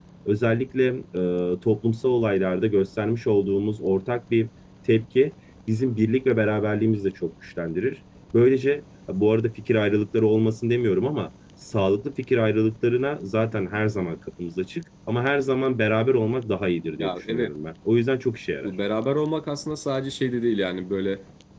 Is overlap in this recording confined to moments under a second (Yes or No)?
Yes